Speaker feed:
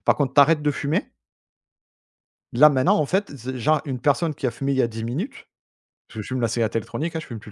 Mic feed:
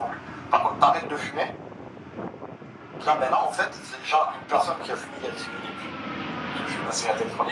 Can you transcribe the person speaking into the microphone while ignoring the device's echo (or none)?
none